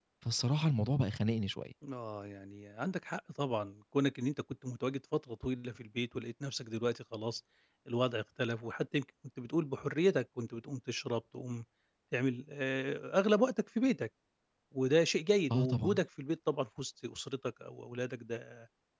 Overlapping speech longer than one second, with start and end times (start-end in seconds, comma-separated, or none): none